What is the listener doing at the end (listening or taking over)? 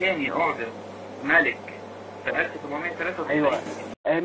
taking over